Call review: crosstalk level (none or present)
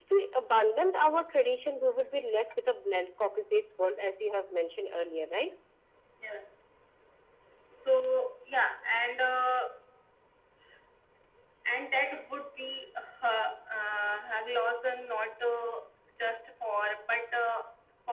none